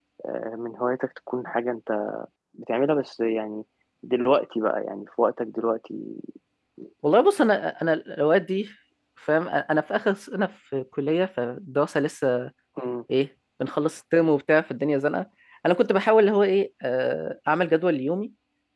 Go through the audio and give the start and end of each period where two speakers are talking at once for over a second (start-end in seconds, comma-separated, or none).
none